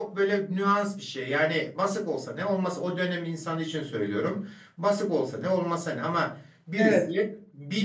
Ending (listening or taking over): listening